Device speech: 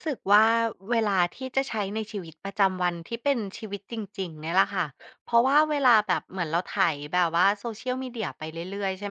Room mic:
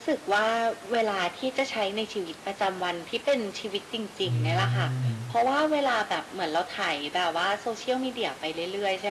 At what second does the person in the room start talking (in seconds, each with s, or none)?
4.2 s